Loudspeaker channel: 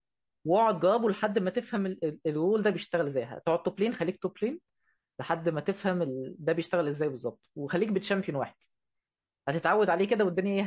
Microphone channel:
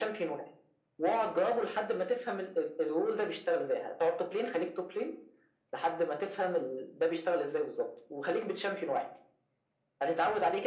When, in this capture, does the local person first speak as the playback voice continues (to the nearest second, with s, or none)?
none